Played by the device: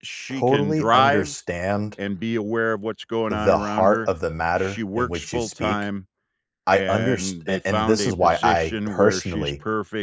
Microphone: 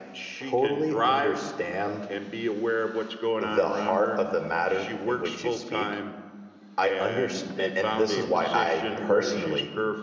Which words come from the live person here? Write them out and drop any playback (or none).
none